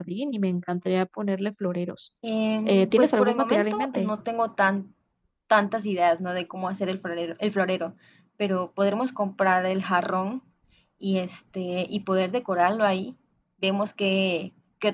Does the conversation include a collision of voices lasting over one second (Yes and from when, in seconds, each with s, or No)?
Yes, from 2.6 s